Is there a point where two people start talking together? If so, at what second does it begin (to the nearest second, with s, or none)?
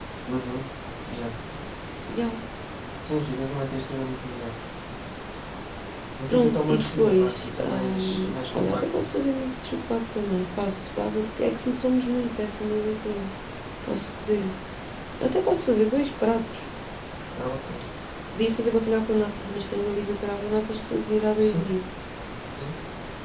6 s